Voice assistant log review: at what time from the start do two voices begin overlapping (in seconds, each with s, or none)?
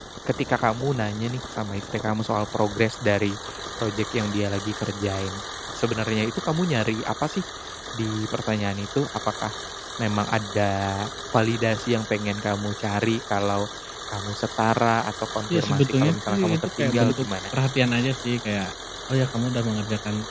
15.5 s